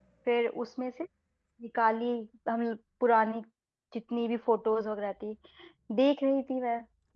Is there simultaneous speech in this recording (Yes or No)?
No